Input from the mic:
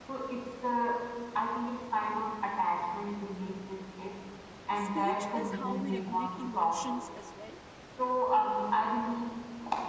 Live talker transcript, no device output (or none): speech is how we regulate emotions as well